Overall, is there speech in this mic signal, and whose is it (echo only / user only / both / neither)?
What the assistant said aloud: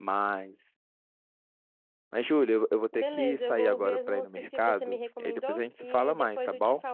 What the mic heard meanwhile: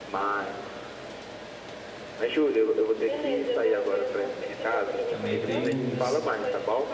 both